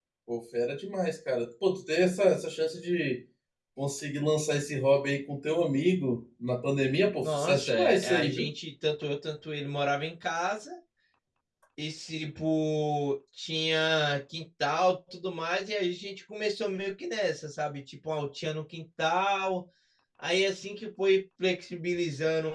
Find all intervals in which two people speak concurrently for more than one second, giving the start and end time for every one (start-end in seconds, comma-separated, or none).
7.2-8.5